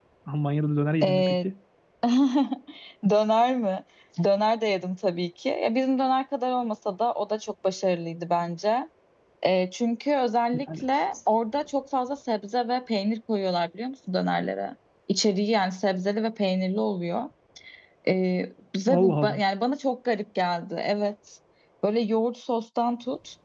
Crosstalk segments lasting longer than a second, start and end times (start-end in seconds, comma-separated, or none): none